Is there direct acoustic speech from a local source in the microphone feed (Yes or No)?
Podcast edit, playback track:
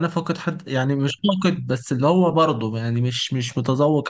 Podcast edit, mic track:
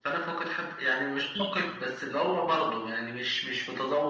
No